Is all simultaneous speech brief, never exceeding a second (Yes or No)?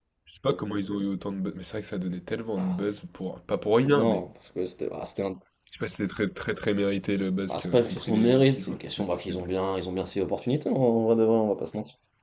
No